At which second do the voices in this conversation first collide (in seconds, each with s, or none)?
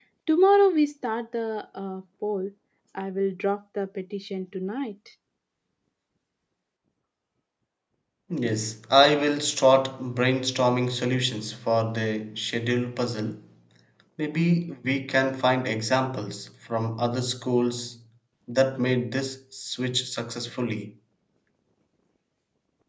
none